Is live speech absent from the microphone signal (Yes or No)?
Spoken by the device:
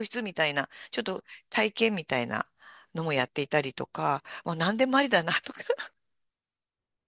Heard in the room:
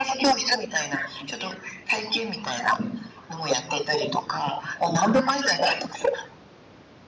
Yes